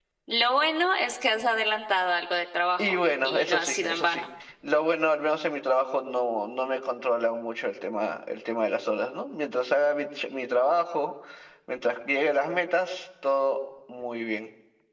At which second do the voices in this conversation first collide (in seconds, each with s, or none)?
2.8 s